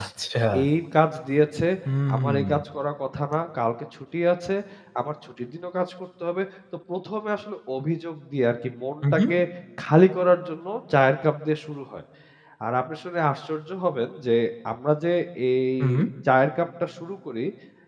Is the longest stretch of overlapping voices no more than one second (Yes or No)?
Yes